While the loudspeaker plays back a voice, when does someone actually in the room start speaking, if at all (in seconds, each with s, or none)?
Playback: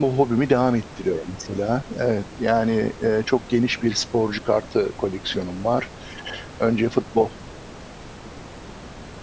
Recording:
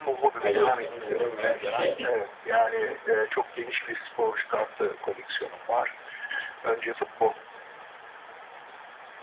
0.3 s